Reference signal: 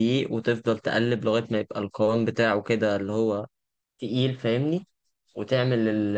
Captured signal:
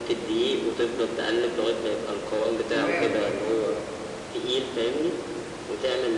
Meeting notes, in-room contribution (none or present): present